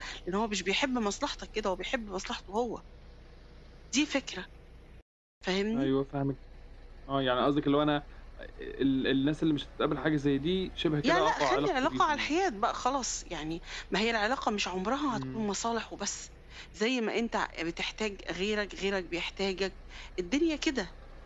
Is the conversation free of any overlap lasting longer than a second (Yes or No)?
No